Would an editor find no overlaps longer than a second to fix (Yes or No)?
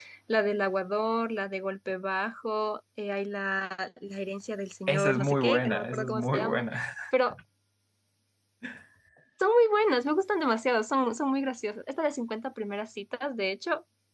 No